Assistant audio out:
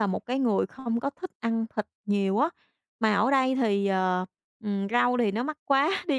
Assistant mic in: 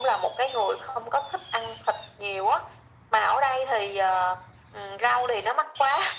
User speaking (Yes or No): No